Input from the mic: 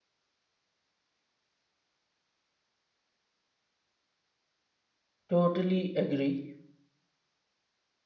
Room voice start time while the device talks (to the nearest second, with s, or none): 5 s